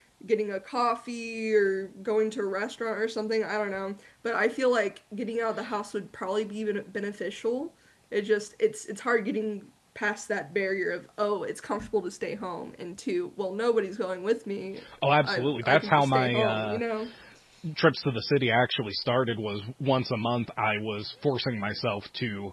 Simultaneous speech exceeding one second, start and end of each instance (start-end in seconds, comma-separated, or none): 15.2-16.8